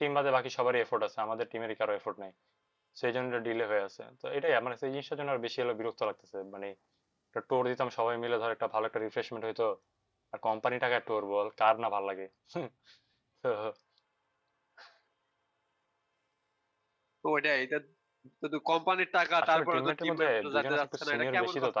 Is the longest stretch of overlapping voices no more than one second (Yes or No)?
No